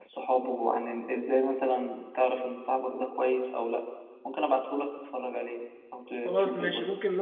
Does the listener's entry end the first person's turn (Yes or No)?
Yes